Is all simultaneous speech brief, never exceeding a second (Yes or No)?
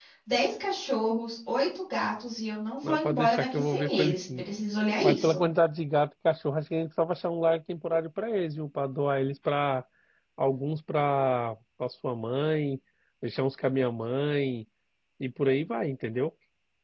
No